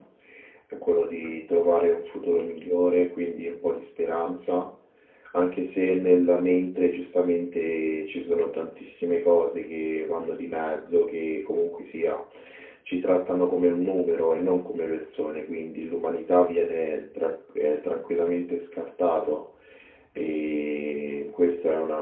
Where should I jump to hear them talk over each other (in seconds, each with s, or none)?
none